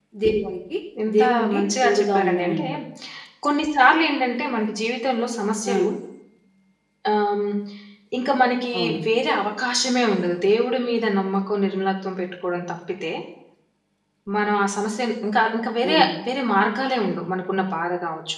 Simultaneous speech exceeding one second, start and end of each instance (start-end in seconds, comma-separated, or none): 1.2-2.6